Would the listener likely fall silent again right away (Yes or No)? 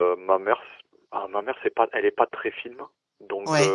Yes